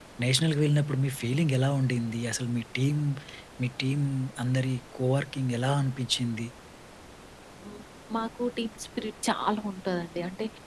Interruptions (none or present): none